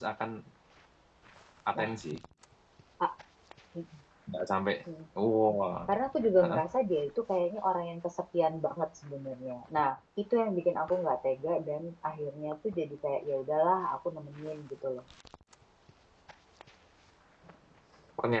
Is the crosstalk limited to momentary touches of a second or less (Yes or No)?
Yes